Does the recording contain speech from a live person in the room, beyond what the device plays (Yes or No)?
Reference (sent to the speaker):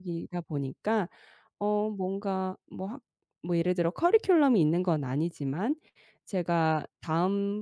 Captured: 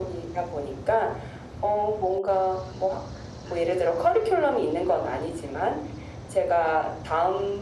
No